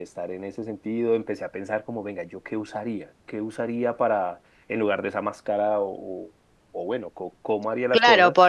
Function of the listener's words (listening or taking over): taking over